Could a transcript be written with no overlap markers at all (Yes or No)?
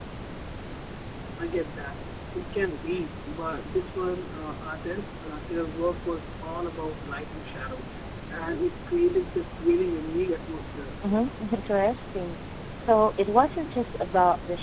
Yes